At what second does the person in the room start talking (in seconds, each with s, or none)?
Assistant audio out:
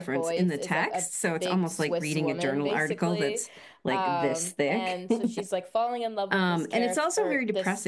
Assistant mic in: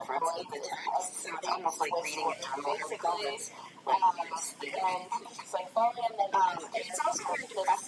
none